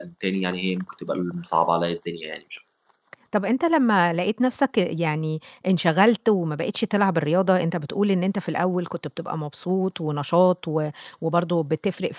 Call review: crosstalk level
none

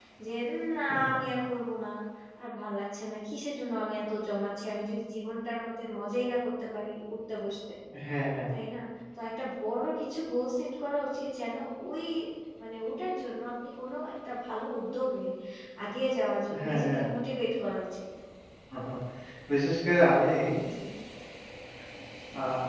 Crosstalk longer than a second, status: none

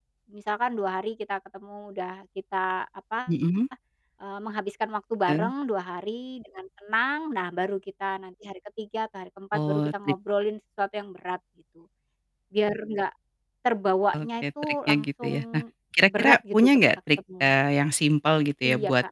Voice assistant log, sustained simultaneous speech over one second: present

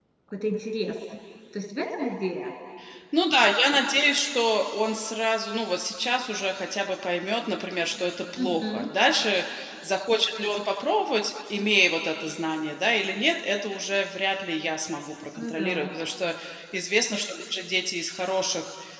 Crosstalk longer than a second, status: none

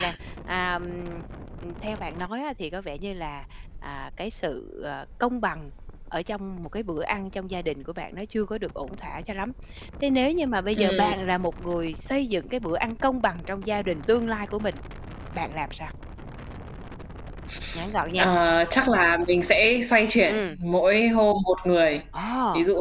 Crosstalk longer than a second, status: none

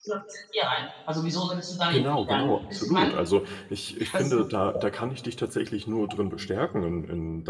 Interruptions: present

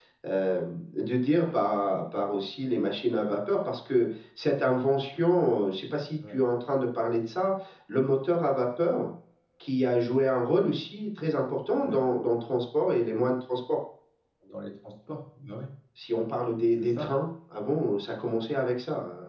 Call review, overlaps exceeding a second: none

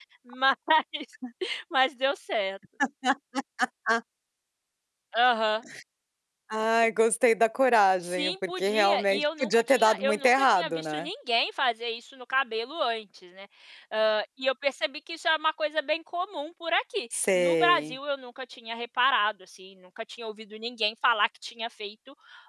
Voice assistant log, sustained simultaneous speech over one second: present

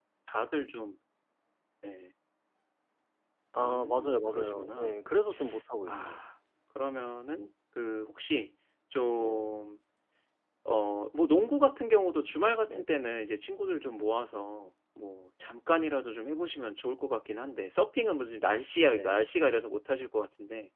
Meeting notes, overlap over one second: present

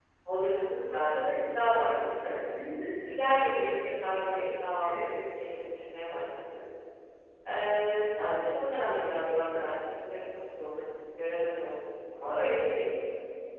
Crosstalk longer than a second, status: present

